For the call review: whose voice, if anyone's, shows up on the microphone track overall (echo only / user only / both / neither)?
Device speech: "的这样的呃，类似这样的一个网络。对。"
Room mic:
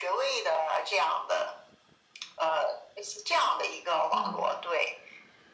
both